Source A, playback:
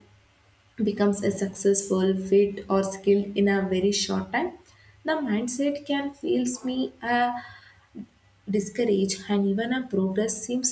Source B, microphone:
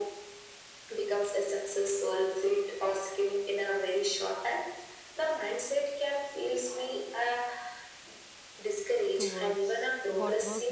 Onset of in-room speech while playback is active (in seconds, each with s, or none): 9.2 s